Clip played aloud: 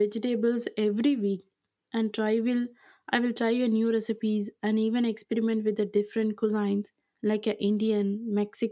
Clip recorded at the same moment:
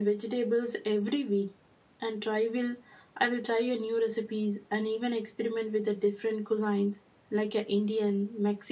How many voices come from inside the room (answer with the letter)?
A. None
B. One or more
A